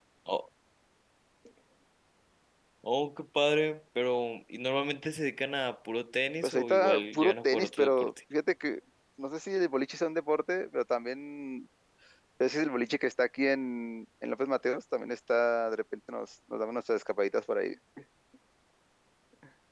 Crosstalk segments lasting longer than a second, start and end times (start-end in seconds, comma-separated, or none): 6.4-8.1